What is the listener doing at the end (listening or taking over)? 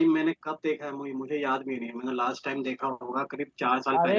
taking over